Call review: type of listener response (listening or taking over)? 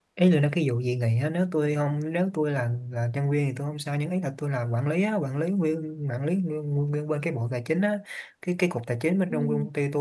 listening